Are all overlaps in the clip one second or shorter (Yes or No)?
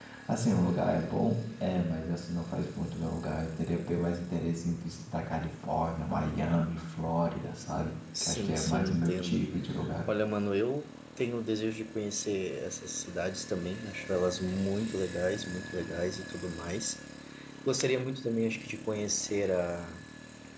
No